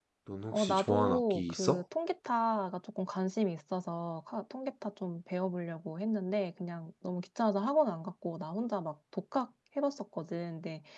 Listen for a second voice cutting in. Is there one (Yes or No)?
Yes